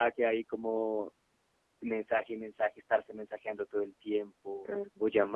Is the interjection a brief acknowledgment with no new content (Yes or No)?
Yes